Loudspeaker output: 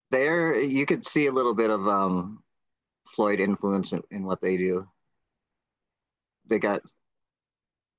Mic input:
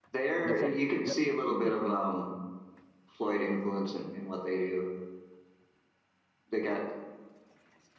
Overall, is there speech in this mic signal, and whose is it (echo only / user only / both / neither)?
both